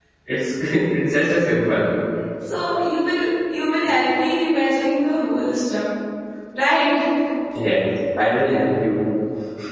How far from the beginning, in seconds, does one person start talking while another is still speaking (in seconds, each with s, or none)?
none